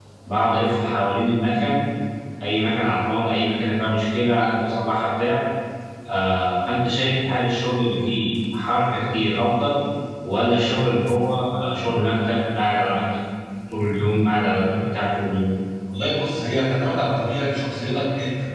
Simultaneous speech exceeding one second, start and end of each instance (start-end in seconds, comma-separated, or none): none